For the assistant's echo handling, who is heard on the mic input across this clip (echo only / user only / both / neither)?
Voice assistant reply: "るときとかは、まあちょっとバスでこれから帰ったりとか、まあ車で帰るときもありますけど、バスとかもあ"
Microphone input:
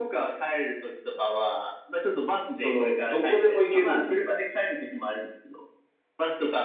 both